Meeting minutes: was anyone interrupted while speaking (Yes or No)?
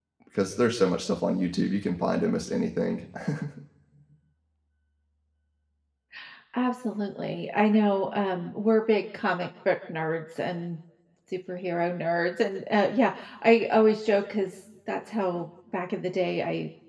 No